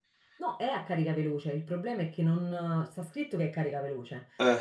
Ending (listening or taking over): listening